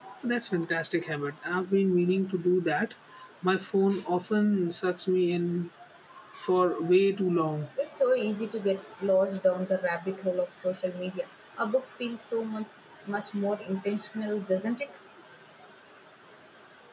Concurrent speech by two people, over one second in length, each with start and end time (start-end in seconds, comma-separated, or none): none